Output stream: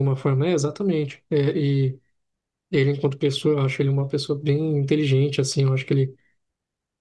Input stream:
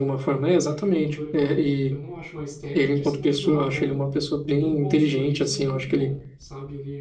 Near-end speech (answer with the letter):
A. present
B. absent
A